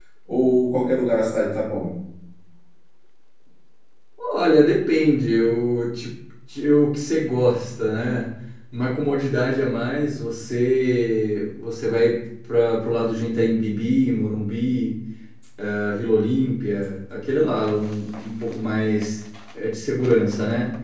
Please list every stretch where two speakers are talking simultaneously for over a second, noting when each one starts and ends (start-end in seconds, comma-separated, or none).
none